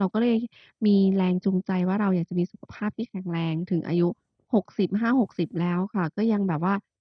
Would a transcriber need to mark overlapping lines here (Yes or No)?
No